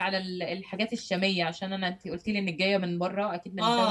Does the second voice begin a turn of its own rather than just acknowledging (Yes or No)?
No